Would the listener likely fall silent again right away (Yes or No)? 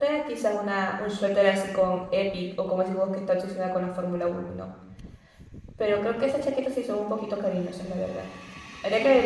No